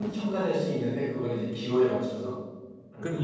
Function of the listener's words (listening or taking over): taking over